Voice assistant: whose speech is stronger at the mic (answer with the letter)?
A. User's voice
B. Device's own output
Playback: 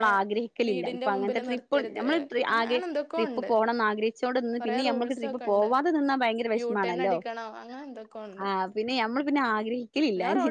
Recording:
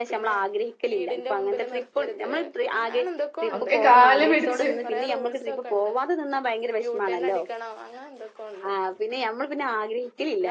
A